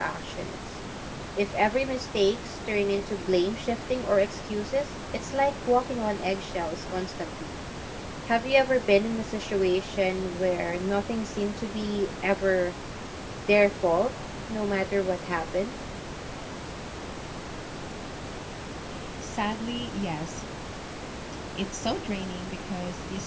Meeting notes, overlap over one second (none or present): none